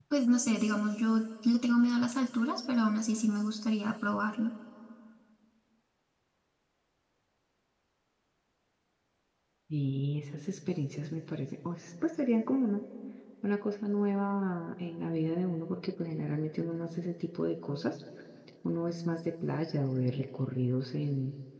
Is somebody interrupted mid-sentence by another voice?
No

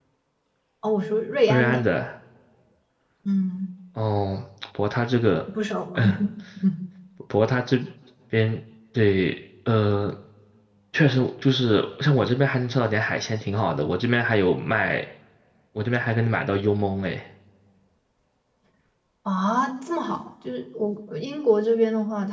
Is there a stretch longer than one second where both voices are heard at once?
No

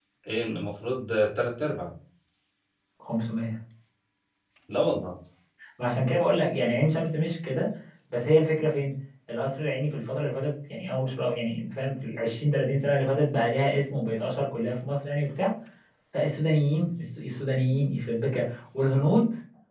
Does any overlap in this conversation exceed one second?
No

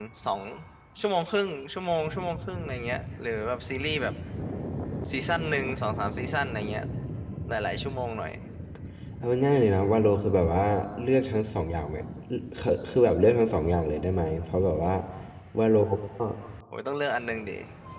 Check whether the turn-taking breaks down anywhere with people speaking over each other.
No

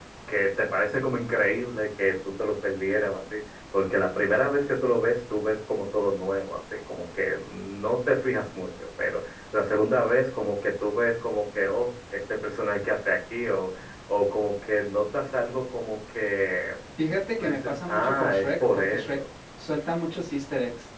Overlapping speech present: Yes, from 17.4 s

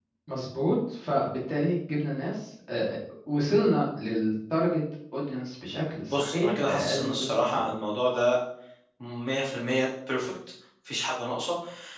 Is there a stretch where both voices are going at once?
Yes, from 6.1 s

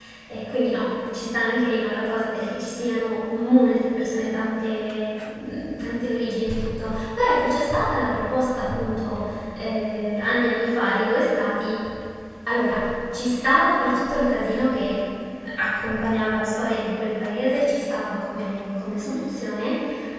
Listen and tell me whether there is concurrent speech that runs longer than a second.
No

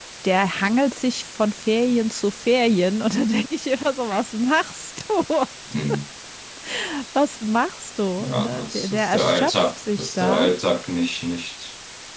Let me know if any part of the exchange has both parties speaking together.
Yes, from 8.2 s

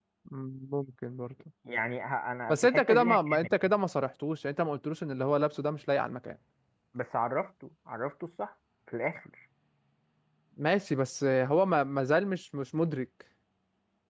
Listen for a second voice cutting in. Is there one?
Yes, from 2.5 s

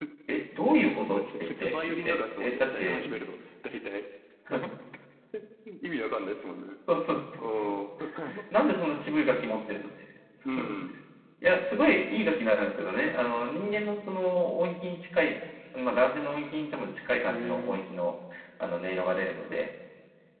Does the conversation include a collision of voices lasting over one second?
Yes, from 1.1 s

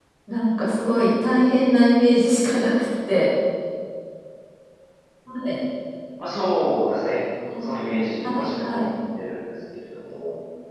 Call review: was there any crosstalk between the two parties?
Yes, from 7.6 s

